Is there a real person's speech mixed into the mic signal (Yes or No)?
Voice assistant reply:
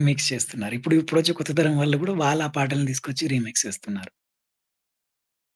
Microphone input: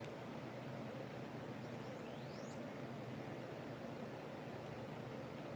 No